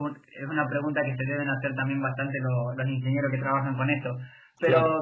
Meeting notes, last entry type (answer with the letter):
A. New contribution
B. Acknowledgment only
B